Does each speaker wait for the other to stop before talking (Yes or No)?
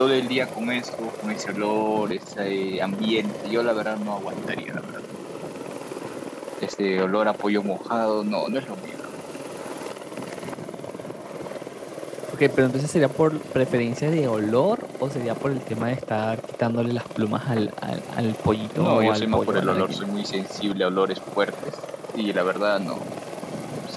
No